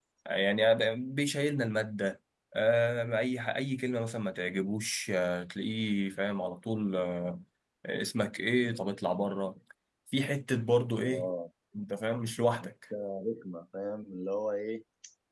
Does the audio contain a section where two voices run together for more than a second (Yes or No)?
No